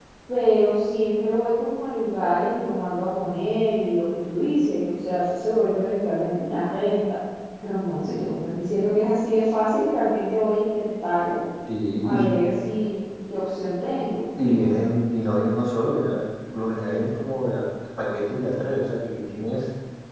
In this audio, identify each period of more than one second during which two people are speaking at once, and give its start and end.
none

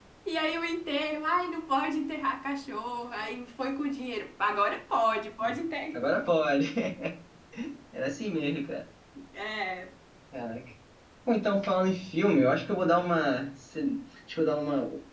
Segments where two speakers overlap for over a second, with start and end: none

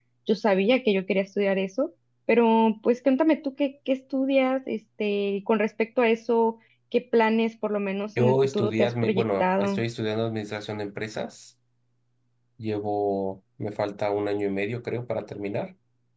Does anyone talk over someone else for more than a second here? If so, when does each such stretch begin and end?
8.2-9.8

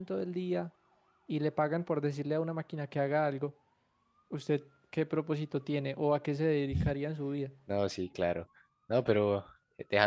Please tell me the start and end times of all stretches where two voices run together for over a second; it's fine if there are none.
none

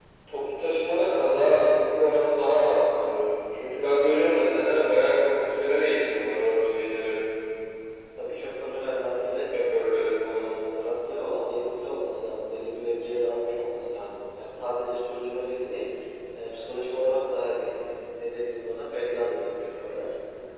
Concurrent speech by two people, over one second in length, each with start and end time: none

